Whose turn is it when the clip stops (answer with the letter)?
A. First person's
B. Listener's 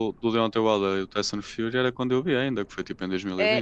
B